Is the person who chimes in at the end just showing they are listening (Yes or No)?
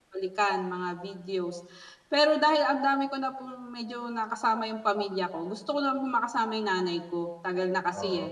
Yes